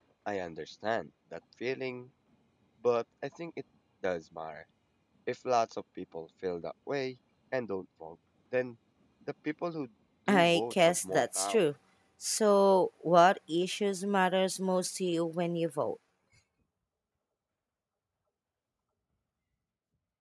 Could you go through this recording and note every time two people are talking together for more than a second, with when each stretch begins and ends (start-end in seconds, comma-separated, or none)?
10.3-11.6